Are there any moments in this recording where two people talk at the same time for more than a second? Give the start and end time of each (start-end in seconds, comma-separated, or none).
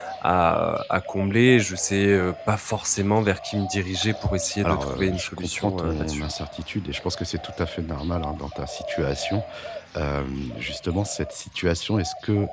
4.6-6.3